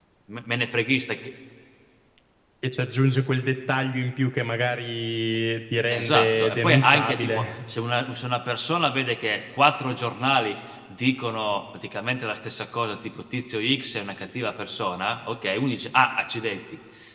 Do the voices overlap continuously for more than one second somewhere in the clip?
Yes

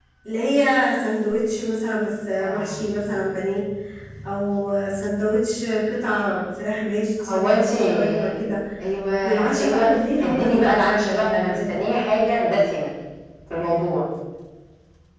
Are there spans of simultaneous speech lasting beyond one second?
Yes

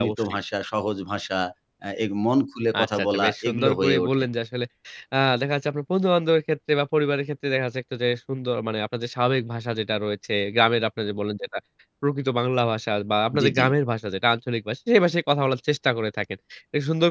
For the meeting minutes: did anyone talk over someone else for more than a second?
Yes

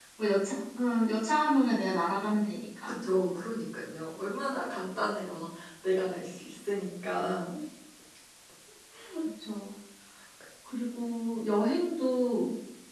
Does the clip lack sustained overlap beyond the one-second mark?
Yes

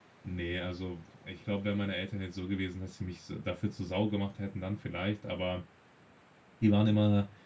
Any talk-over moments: No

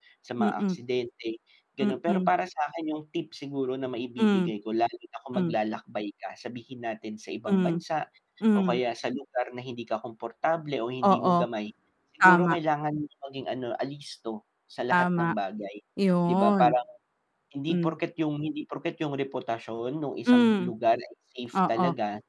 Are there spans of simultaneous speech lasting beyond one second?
No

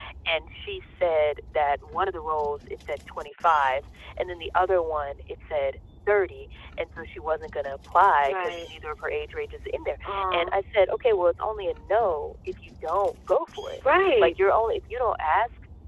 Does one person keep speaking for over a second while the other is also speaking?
No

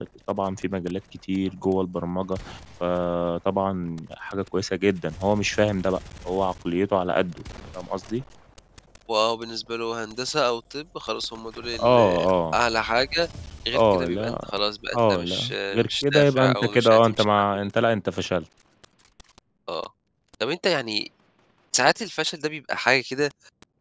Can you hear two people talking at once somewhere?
Yes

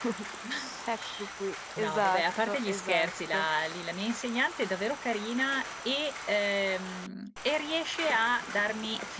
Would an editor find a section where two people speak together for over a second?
Yes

